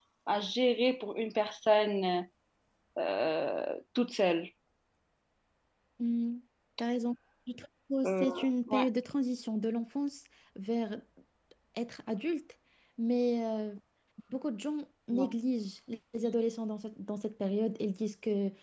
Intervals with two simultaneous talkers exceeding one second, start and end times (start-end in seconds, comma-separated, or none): none